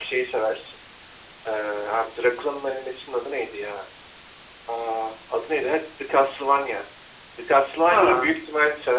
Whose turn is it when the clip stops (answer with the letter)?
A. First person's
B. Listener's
A